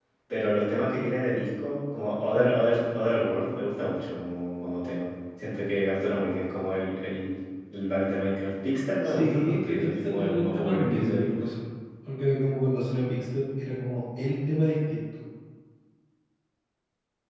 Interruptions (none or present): present